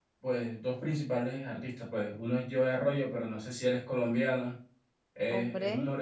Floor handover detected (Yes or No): No